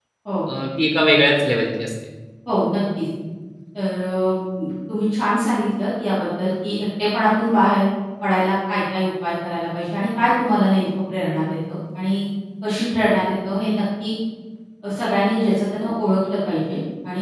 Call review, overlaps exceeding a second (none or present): none